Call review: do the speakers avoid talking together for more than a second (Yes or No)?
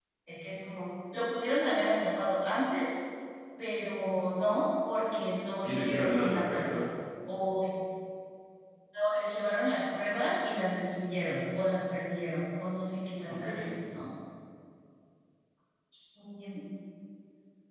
No